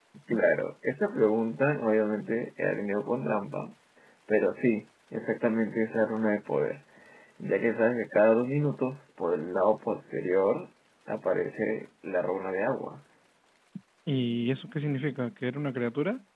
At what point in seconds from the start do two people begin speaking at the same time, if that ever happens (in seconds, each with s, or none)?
none